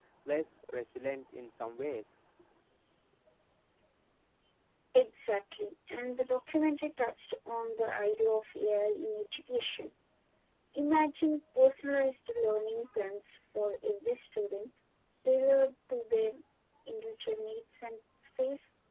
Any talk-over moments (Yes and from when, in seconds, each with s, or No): No